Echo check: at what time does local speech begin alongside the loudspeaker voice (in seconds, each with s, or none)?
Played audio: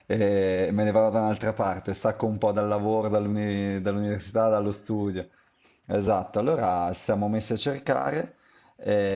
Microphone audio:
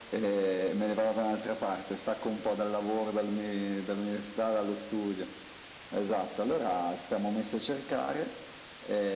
none